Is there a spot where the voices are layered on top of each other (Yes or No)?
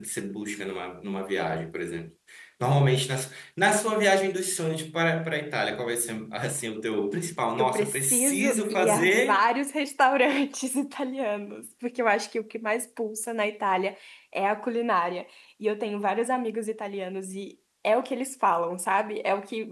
Yes